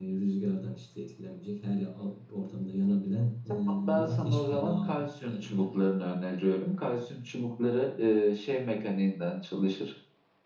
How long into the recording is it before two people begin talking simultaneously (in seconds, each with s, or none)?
3.7 s